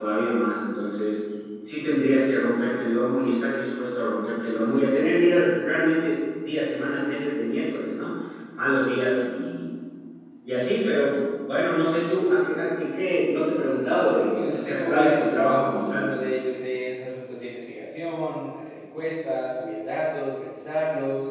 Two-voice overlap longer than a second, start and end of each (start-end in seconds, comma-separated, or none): 14.3-16.1